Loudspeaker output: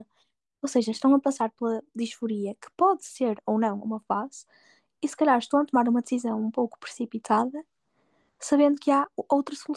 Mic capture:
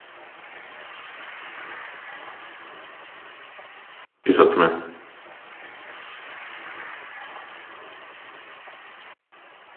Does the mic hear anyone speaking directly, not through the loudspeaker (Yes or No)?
Yes